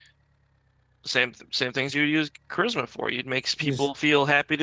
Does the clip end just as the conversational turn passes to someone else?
No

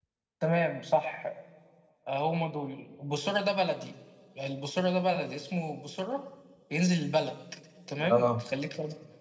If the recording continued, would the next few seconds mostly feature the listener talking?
No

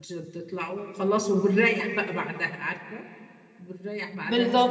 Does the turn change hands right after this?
Yes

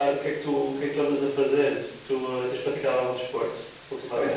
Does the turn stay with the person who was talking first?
No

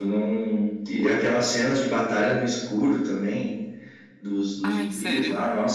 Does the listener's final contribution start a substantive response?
No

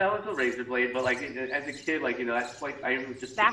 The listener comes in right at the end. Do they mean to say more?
No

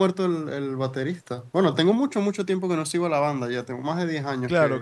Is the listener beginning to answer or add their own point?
Yes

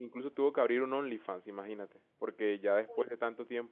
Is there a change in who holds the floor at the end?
No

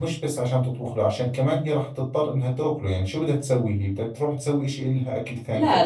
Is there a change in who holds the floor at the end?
Yes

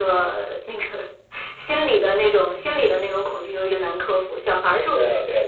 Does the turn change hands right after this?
Yes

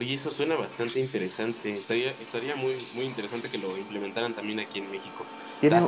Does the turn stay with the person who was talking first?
Yes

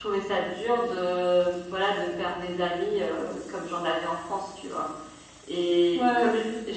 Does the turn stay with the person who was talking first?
Yes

